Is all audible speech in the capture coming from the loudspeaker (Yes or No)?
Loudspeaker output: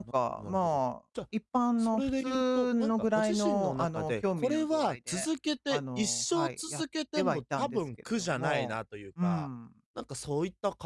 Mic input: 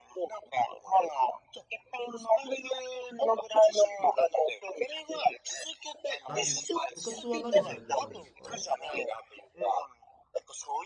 No